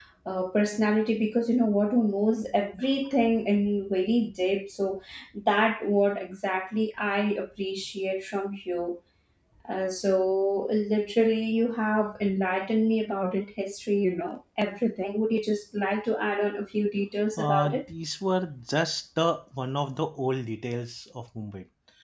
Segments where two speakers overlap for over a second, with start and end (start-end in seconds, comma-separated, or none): none